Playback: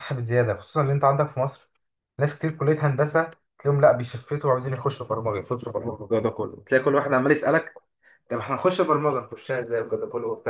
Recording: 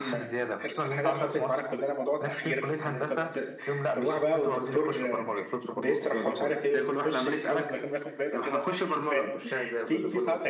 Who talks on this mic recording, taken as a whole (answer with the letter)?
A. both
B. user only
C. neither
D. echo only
A